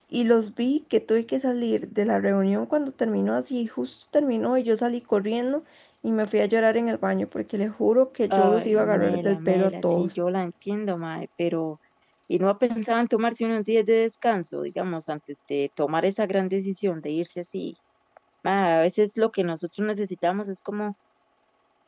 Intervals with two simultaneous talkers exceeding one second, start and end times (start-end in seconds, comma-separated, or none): 8.3-10.1